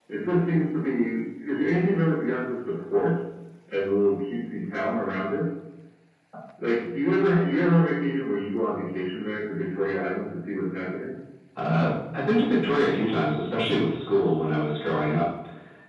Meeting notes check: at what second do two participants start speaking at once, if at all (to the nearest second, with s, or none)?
none